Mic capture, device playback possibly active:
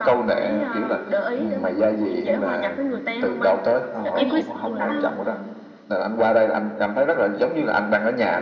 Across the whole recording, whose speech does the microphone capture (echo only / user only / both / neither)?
both